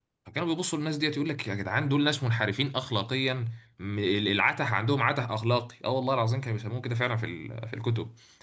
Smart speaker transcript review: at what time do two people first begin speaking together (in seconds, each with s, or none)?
none